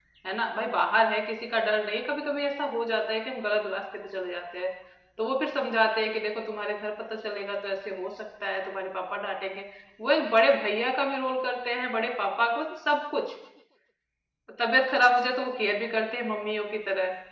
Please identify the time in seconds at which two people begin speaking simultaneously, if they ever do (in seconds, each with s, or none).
none